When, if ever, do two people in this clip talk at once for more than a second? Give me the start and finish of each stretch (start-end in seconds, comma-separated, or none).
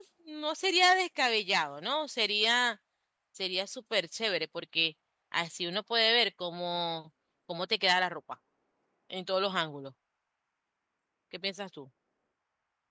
none